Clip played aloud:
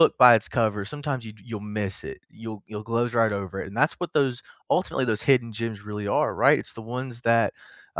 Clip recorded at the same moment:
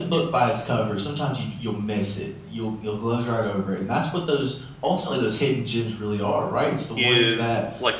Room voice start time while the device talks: 7.0 s

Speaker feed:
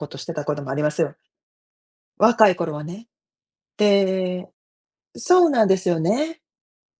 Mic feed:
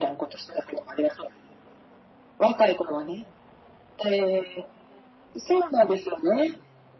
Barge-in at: none

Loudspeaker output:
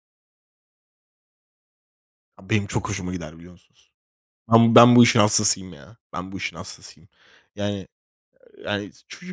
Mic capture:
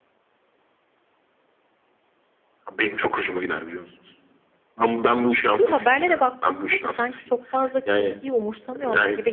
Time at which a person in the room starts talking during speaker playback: 5.5 s

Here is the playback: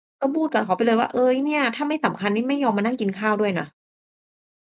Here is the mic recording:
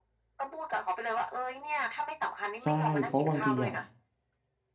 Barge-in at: 2.6 s

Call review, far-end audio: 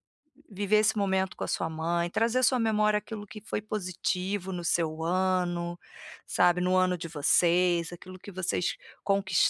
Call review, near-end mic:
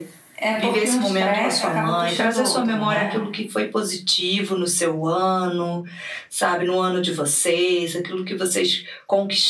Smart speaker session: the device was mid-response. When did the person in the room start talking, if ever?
0.4 s

